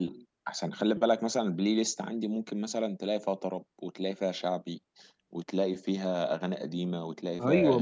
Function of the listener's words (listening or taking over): taking over